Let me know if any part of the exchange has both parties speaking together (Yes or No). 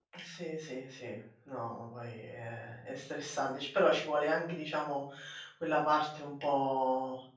No